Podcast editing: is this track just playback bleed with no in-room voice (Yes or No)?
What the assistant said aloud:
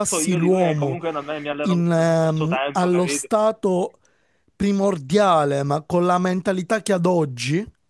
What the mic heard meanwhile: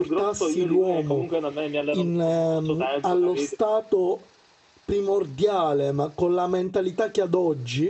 Yes